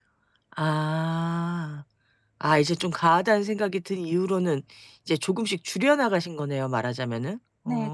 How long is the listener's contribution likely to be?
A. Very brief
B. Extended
B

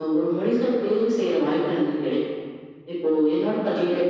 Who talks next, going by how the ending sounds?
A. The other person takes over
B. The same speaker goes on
B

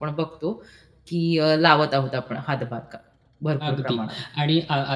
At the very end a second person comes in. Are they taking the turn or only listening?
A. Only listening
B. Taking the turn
B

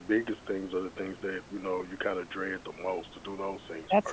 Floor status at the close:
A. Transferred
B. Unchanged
A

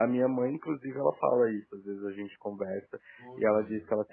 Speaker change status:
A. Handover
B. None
B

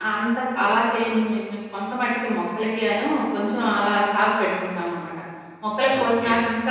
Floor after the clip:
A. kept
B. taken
A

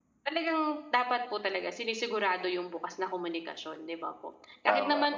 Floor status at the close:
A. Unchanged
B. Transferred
A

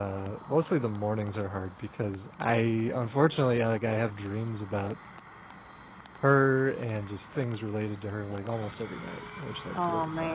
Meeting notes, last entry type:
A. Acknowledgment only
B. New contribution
B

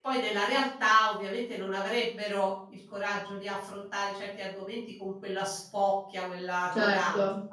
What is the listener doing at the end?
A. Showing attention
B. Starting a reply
B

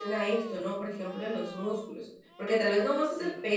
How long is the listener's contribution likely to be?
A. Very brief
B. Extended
A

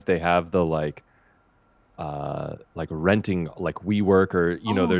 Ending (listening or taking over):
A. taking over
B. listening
B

